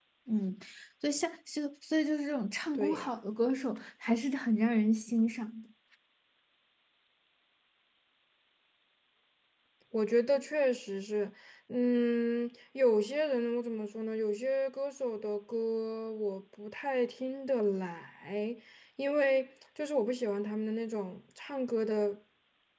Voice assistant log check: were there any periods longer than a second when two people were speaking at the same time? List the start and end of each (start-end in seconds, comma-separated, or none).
none